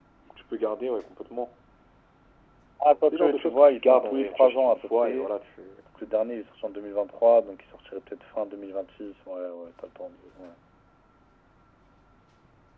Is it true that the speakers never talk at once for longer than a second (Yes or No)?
No